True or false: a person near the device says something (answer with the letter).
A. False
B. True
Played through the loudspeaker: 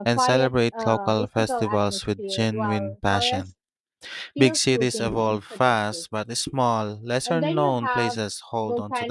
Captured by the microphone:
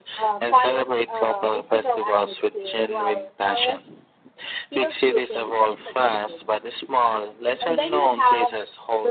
A